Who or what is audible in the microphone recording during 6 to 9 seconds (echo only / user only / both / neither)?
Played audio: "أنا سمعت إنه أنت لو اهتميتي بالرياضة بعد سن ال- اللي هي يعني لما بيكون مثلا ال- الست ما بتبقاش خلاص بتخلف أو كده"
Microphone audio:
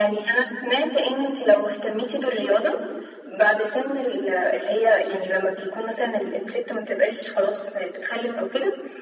echo only